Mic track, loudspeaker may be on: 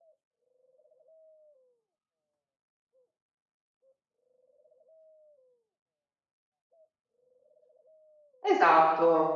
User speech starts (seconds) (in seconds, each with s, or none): 8.4 s